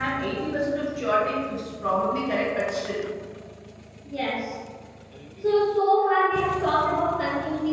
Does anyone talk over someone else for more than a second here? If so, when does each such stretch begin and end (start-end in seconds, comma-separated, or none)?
none